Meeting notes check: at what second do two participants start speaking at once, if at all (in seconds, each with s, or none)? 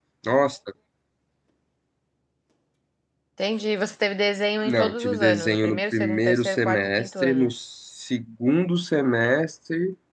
4.6 s